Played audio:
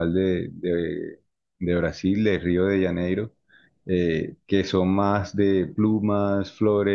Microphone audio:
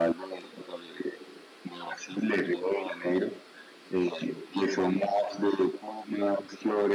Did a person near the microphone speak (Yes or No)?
No